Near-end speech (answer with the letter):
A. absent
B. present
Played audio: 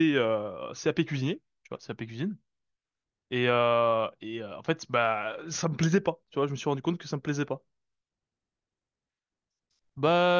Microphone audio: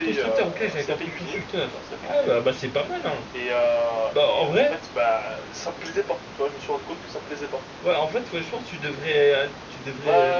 B